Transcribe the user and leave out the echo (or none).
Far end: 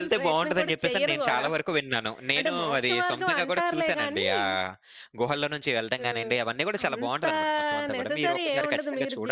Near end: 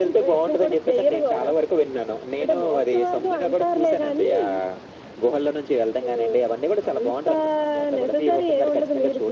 none